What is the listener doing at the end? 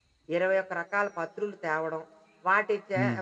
listening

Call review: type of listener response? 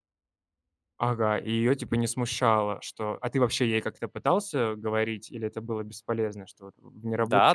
taking over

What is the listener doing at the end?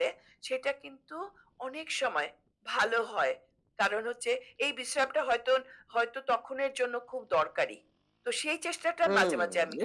taking over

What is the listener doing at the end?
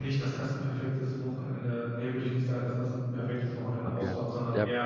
taking over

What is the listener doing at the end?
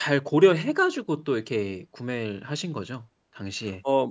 taking over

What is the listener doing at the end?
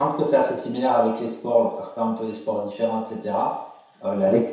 listening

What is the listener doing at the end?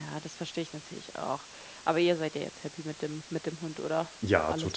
taking over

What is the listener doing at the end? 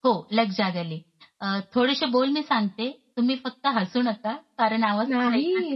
taking over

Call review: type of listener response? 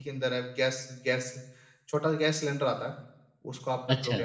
listening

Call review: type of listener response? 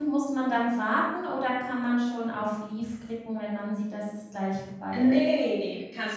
taking over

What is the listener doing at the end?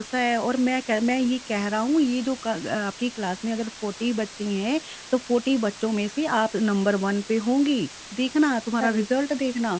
listening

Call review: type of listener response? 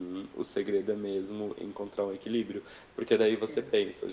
listening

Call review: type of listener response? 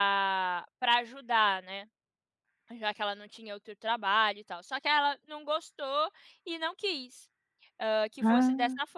listening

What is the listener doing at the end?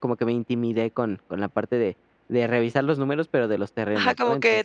taking over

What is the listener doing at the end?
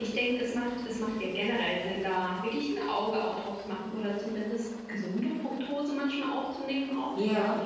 listening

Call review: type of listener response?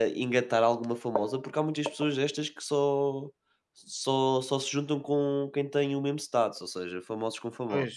taking over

